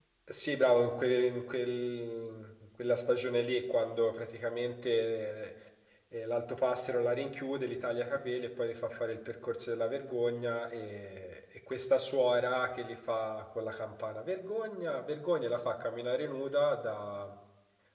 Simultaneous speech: No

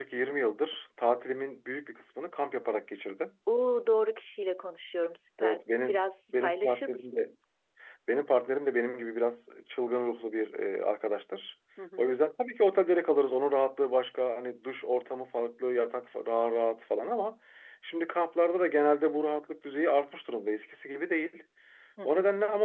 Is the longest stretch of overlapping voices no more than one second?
No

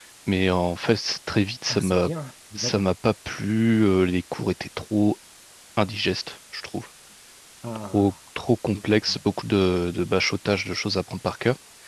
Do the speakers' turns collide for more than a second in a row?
No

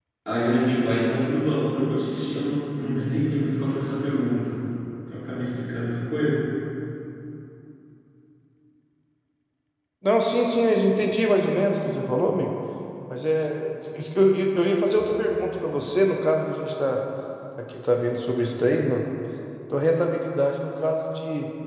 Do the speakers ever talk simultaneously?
No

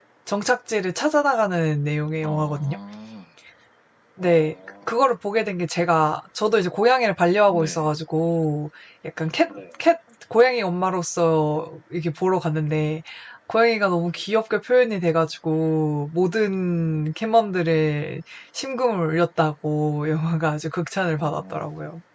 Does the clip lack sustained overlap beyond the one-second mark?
Yes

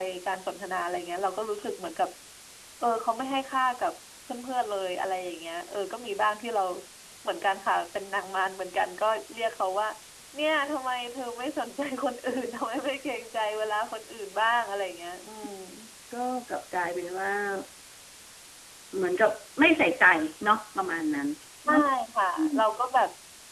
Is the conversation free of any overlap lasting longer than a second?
Yes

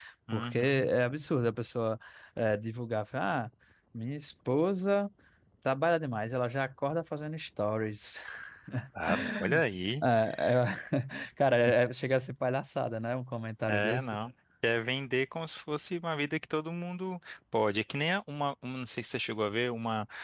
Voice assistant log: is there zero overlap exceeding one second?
Yes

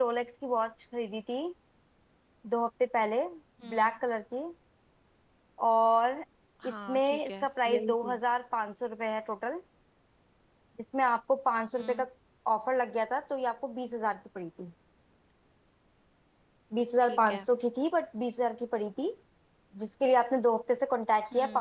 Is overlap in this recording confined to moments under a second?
No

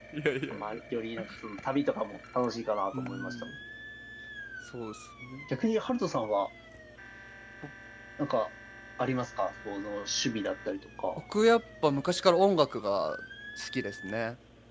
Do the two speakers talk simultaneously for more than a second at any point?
No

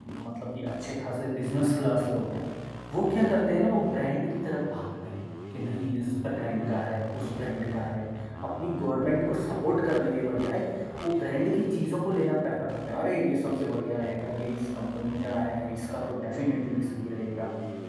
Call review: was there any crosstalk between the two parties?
No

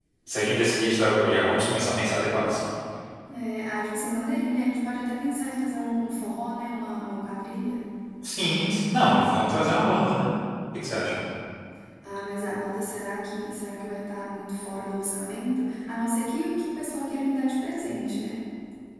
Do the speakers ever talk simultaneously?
No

